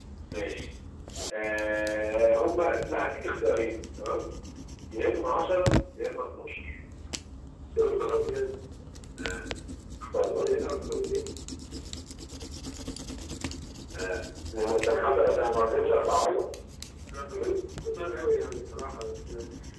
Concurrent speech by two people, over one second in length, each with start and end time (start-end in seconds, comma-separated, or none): 14.9-16.4